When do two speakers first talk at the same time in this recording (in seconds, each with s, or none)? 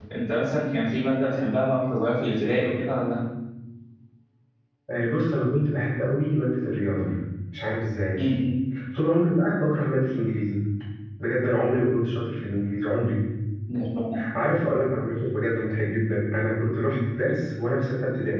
none